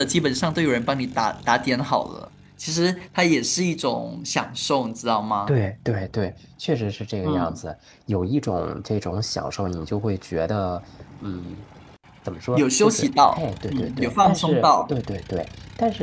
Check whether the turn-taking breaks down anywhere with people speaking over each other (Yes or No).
Yes